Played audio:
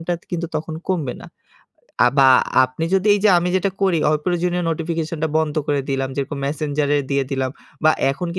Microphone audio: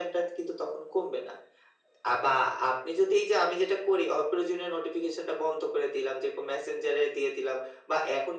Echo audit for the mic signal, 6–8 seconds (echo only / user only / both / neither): echo only